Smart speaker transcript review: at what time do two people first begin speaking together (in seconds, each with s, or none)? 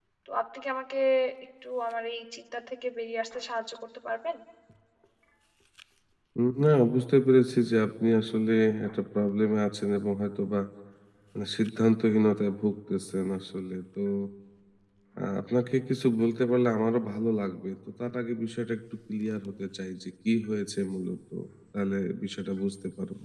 none